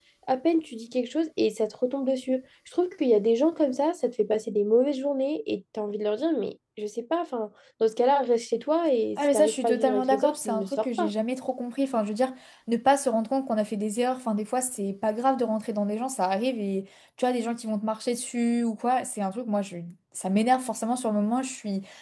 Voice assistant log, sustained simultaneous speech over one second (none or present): present